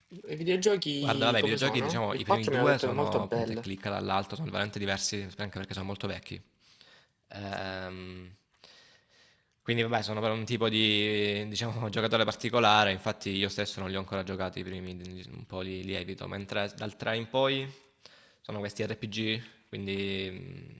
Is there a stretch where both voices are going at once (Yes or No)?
Yes